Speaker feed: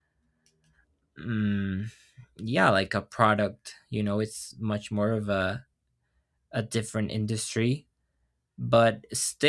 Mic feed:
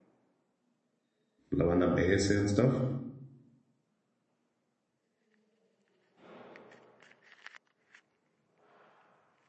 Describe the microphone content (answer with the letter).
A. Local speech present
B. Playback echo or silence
A